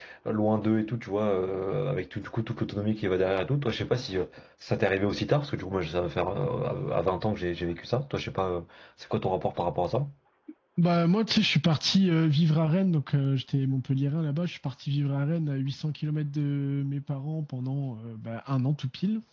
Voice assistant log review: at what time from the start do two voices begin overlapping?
none

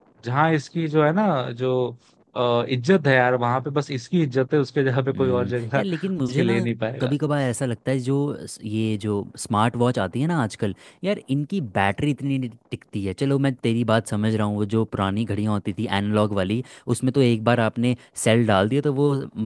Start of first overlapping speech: 5.1 s

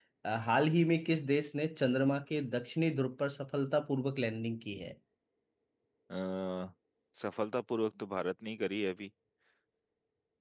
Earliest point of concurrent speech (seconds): none

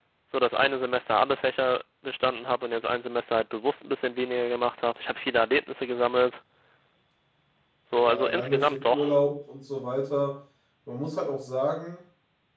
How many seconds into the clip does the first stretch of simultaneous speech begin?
7.9 s

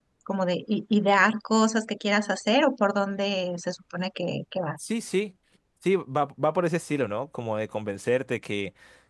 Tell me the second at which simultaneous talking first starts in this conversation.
none

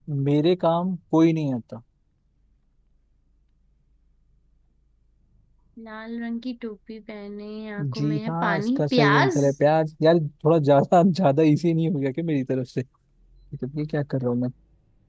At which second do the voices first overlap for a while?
7.8 s

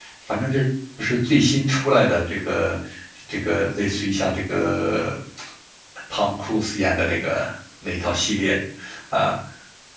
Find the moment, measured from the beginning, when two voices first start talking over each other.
none

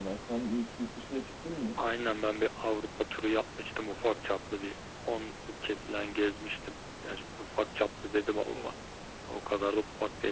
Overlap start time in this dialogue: none

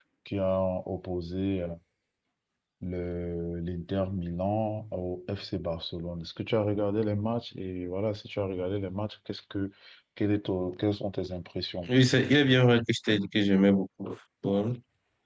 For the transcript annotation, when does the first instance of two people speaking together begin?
none

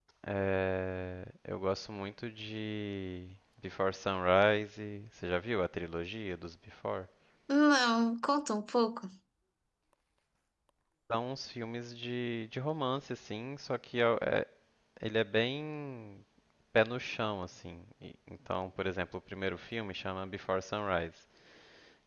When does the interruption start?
none

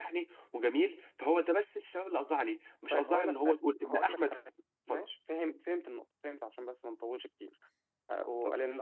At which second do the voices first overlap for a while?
2.9 s

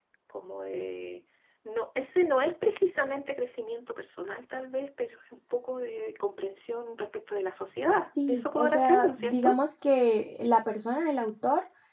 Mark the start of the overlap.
8.2 s

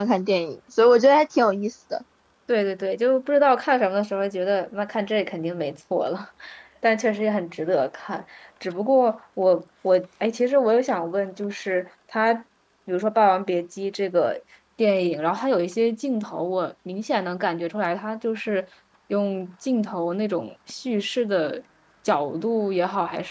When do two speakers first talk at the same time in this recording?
none

